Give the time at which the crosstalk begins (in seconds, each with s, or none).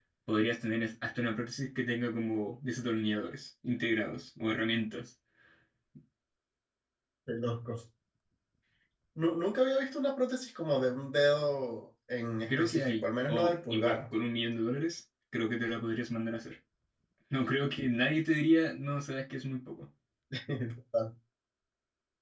12.5 s